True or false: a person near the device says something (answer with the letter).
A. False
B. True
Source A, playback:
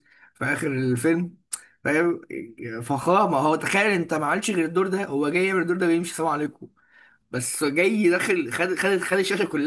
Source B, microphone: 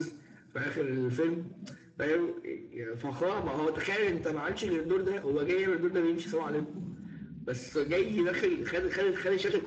A